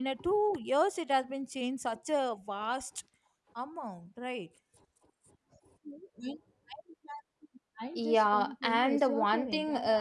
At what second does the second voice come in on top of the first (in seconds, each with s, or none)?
7.9 s